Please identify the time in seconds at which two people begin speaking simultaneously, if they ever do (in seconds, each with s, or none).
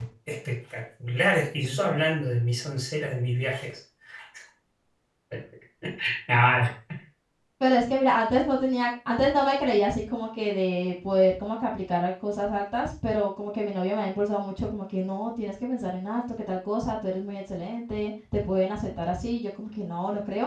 none